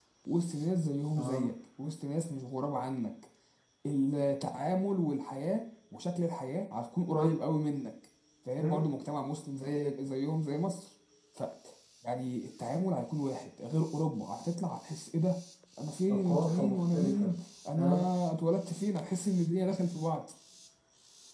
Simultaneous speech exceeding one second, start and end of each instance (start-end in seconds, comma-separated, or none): 16.1-17.3